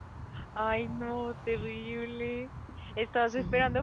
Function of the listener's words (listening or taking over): listening